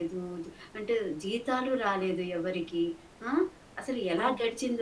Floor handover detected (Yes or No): No